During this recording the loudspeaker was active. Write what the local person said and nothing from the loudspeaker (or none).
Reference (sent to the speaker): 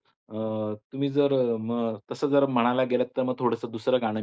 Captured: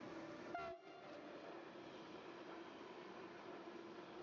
none